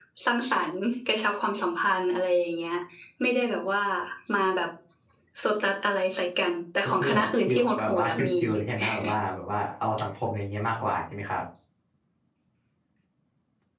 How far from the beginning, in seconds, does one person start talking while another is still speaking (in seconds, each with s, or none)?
6.8 s